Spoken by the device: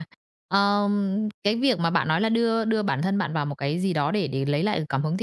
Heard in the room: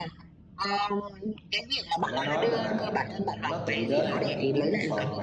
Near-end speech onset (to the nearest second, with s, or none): 2 s